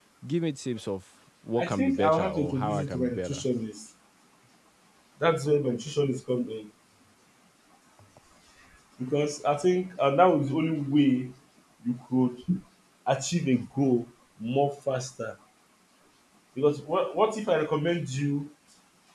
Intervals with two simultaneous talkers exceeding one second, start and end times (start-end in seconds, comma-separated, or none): 1.6-3.4